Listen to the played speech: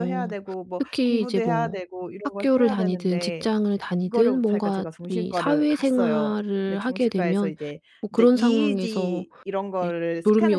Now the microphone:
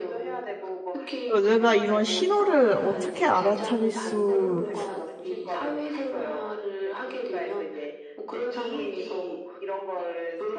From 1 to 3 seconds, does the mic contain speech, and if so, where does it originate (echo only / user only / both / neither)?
both